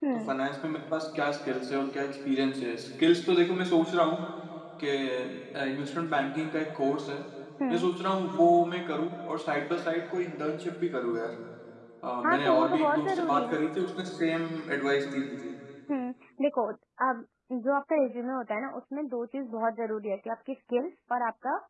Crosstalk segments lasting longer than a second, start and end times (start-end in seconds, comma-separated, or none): 12.2-13.6